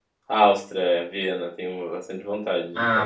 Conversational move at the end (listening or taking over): taking over